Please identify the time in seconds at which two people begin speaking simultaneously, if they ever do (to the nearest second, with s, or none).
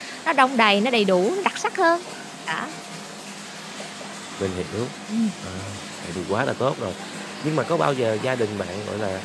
none